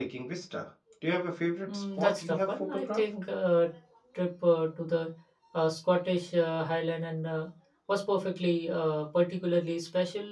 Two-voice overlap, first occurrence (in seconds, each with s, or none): 1.7 s